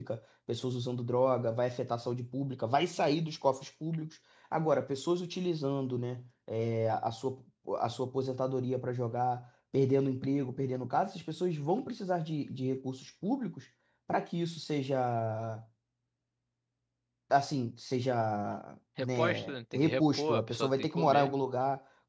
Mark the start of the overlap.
19.0 s

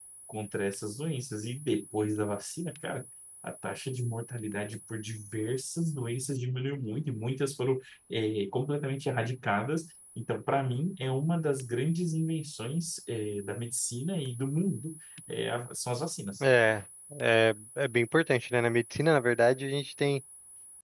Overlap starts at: none

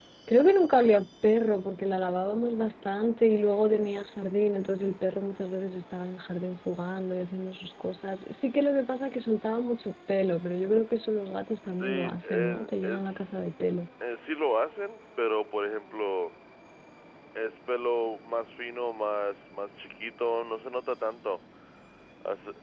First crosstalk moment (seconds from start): 11.7 s

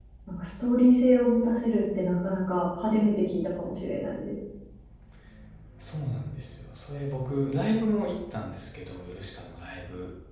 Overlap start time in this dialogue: none

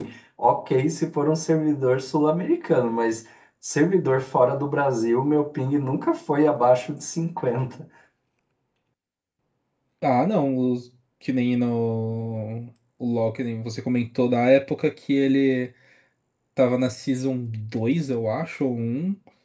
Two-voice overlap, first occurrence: none

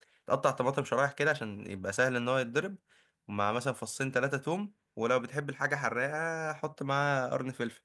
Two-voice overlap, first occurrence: none

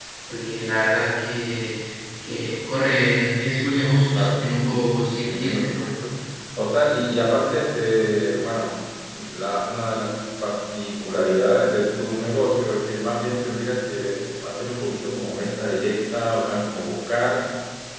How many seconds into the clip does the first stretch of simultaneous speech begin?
4.1 s

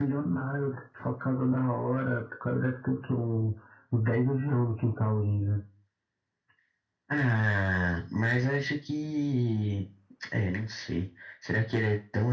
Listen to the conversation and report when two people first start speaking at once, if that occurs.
none

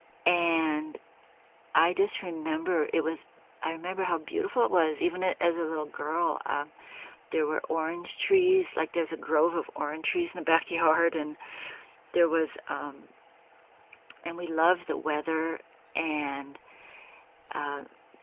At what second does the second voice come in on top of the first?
none

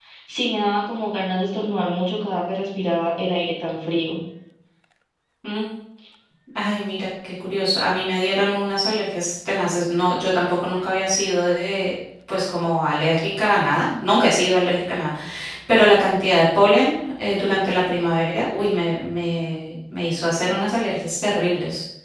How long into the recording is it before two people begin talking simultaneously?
none

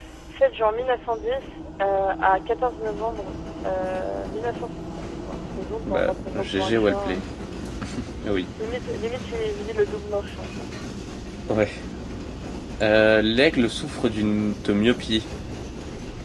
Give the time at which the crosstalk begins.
5.9 s

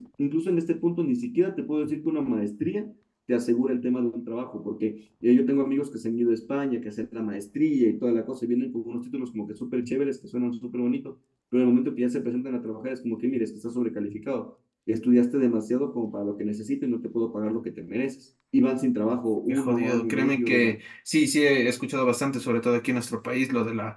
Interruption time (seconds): 19.5 s

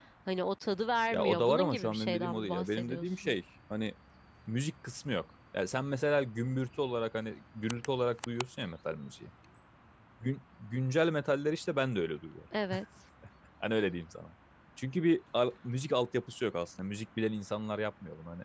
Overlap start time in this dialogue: 1.1 s

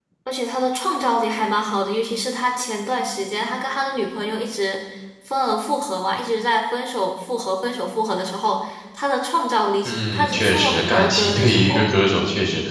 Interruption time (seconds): 9.8 s

